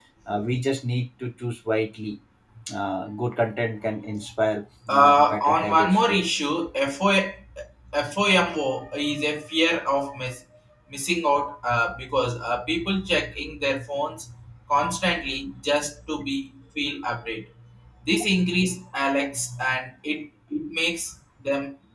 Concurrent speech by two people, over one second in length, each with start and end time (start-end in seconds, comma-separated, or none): 4.9-6.2